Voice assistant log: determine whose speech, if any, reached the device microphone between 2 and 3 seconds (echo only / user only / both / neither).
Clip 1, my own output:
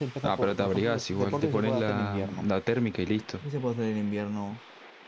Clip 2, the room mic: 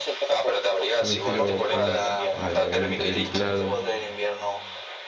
both